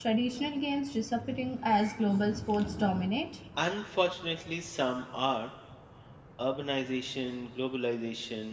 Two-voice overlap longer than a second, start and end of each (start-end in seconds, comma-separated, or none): none